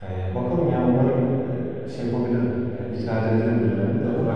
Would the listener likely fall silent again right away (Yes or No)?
No